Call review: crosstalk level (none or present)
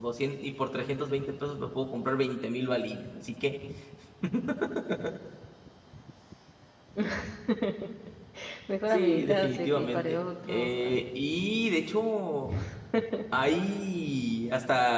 present